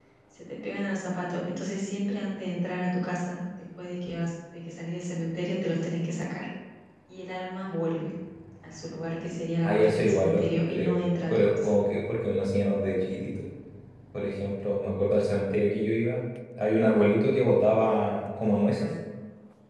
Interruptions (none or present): present